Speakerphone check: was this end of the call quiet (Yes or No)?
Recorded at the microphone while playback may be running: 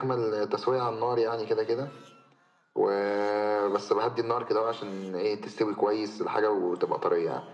Yes